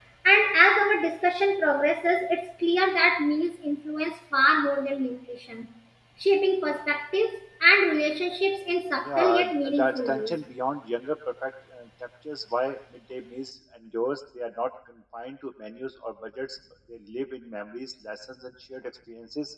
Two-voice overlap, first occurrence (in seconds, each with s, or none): 9.0 s